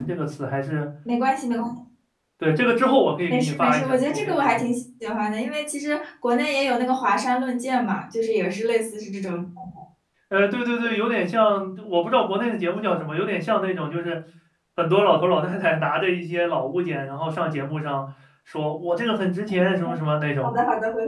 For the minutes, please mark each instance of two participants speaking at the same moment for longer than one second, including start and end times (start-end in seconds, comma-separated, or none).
3.3-4.6